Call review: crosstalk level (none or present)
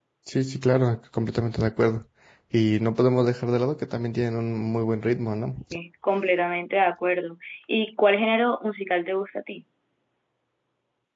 none